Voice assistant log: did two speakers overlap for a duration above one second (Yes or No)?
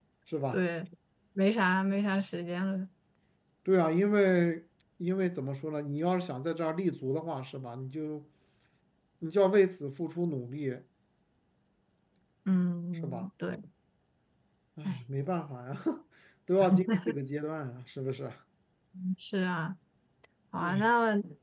No